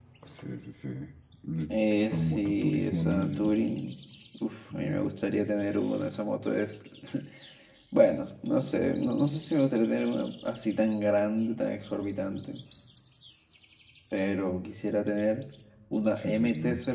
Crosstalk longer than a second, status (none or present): present